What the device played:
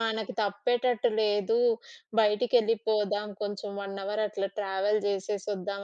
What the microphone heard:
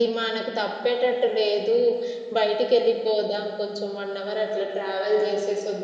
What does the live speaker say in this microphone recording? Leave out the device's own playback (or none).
none